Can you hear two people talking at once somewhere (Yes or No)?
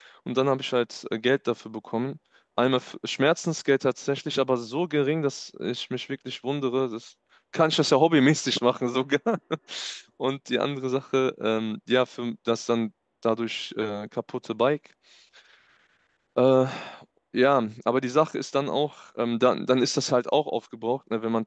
No